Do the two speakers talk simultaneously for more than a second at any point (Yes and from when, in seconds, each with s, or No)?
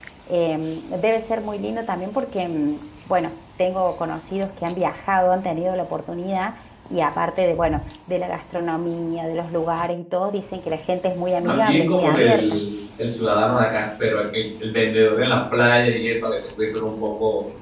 Yes, from 11.4 s